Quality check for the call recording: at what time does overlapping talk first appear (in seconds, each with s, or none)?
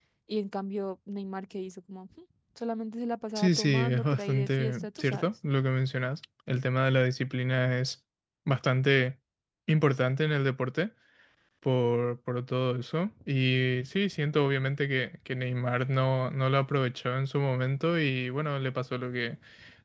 3.4 s